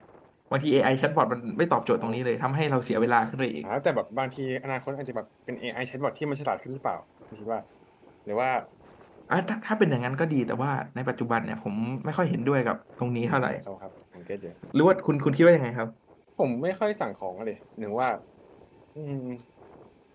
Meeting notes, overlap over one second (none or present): none